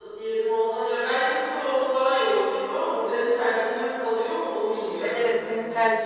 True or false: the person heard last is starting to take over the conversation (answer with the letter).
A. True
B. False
A